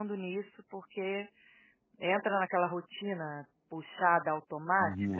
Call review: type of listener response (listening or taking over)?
taking over